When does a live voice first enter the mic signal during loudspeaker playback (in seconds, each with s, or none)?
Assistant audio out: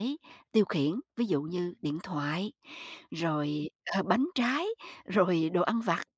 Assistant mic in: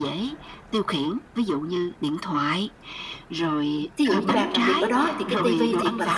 4.0 s